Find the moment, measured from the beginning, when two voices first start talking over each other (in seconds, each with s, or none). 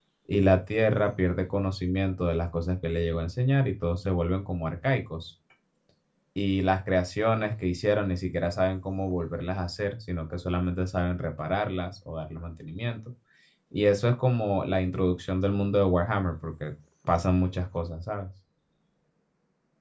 none